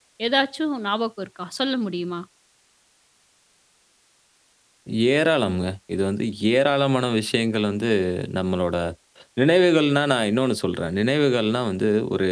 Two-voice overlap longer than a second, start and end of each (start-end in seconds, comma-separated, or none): none